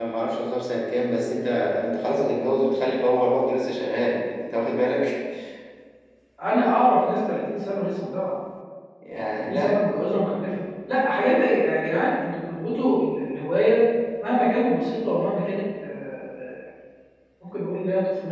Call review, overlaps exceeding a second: none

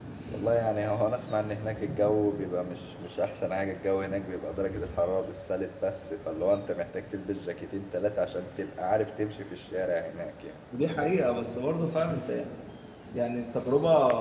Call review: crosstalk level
none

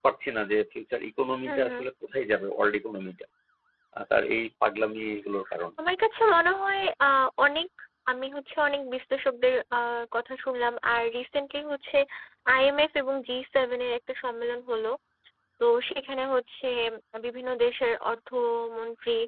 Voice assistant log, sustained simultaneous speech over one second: none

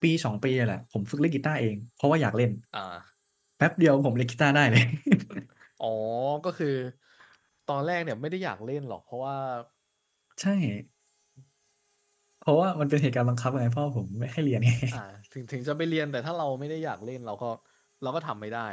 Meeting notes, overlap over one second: none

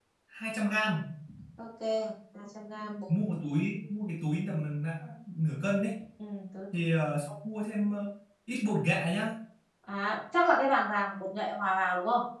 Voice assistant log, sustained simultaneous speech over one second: none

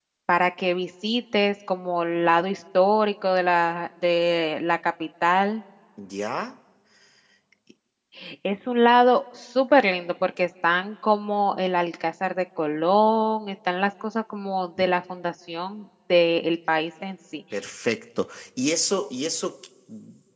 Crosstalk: none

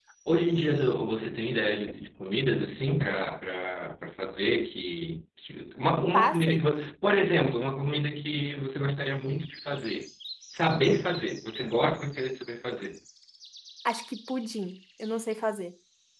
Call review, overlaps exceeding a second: none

